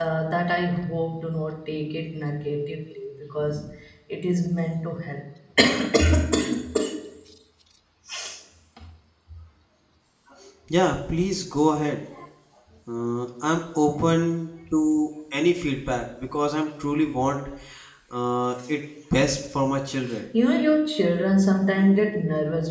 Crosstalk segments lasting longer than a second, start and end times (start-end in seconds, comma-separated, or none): none